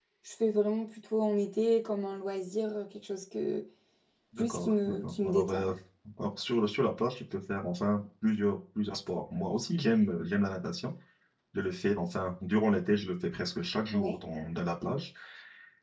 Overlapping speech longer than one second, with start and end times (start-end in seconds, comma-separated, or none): 4.4-5.6